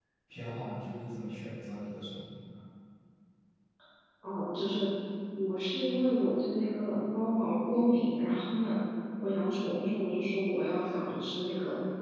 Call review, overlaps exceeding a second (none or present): none